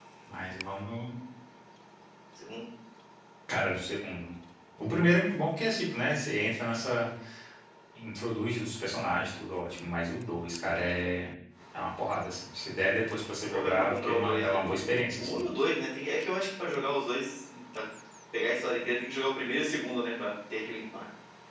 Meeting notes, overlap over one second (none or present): present